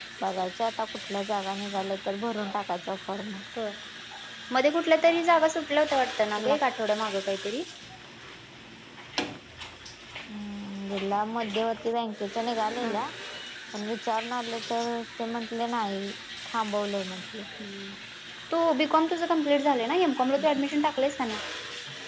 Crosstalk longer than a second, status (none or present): none